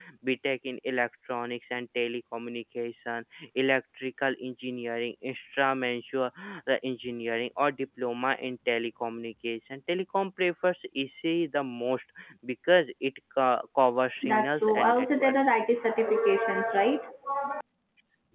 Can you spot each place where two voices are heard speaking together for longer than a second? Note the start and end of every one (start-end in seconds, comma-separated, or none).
14.2-15.5